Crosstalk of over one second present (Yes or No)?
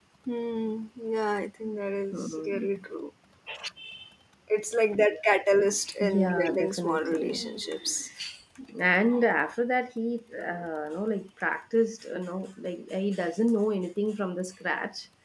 Yes